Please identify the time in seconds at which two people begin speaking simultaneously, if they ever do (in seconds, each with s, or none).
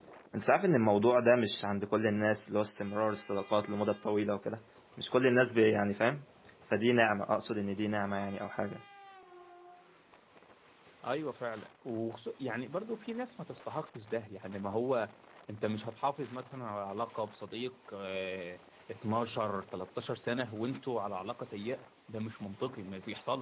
none